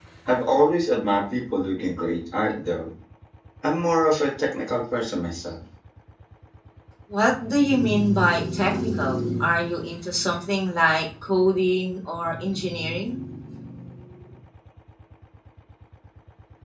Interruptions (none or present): none